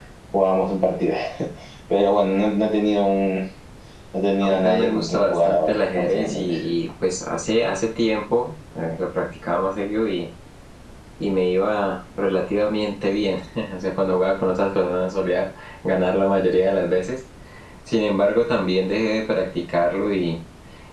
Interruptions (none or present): present